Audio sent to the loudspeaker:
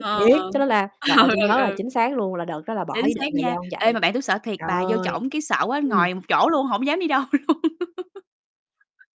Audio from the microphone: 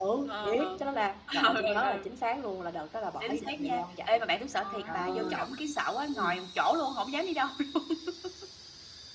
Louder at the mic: echo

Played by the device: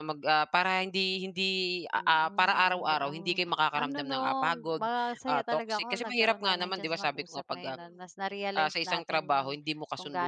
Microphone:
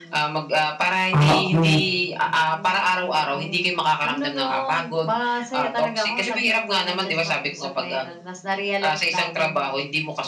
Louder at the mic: user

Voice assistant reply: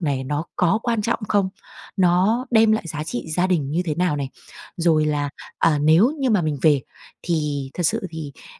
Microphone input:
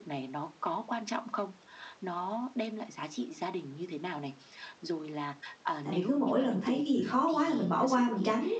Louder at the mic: user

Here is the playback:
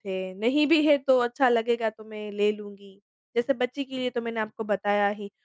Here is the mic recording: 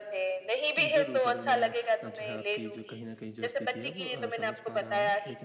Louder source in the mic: echo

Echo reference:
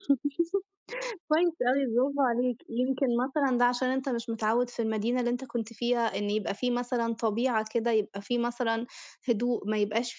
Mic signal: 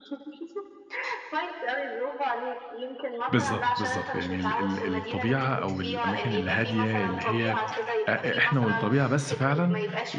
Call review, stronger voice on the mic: user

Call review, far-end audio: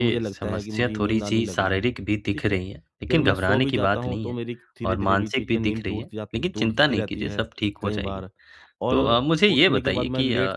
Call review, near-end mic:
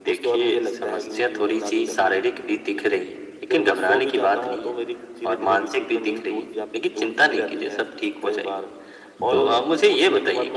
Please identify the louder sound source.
echo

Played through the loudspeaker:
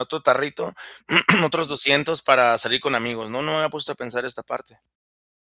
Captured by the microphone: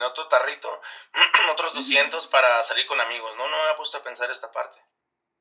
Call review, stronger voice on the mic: echo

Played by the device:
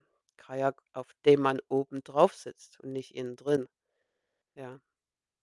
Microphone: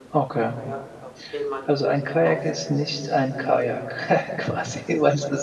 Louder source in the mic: user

